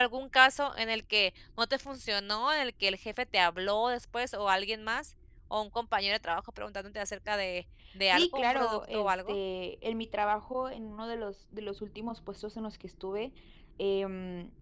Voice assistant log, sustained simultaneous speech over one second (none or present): present